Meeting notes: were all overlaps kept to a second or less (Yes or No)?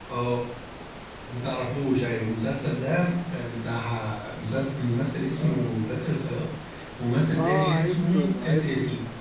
No